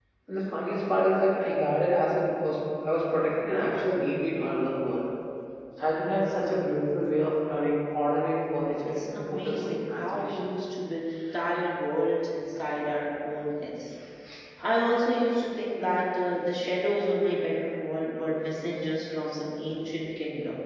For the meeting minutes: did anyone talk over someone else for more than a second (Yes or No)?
Yes